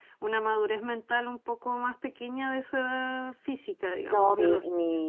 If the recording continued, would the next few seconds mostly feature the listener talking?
Yes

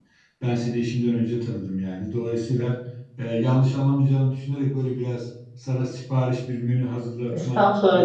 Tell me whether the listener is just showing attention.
No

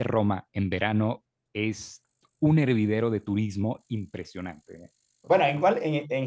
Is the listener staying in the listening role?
No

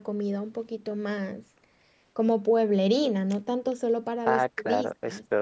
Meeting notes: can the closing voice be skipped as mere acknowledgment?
No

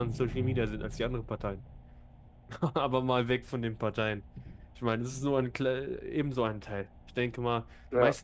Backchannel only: Yes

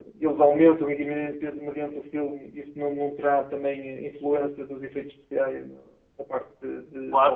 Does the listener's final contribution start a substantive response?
Yes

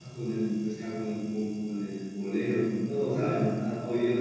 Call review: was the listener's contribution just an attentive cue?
Yes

